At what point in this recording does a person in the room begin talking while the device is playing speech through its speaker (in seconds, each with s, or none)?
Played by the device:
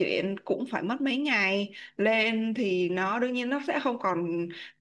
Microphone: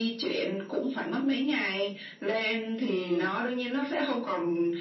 2.9 s